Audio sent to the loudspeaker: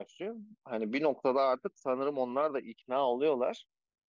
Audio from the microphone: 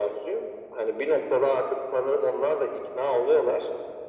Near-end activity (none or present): none